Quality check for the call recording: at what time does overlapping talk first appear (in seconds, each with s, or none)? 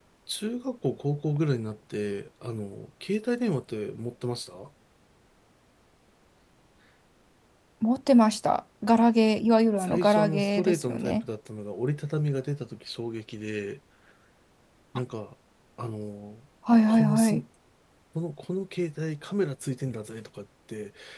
9.8 s